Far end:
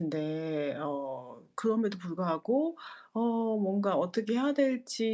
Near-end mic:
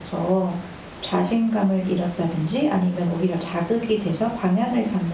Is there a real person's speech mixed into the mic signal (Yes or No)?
Yes